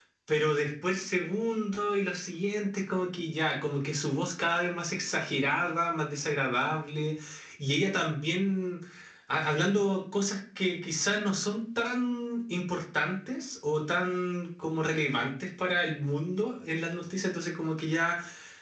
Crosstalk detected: No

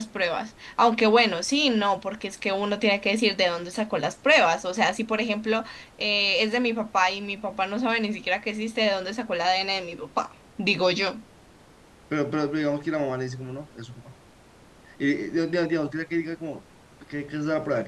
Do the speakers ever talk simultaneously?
No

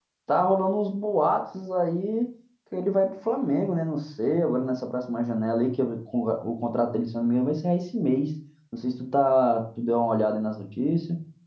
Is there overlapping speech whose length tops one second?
No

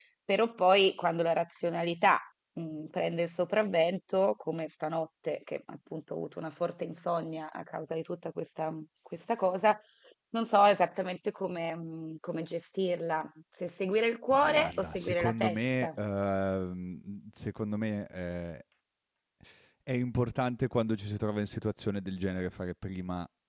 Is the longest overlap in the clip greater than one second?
Yes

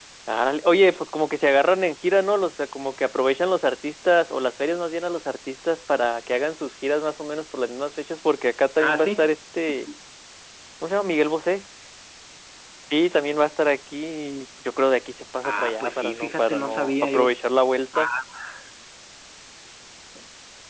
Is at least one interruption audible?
Yes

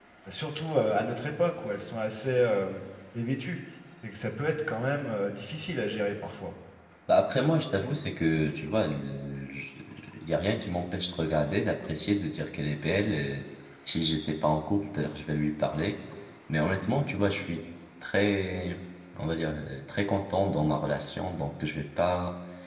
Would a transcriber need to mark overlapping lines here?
No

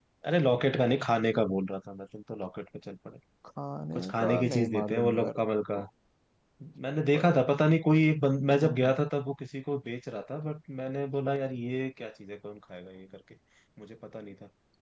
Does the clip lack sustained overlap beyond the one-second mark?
No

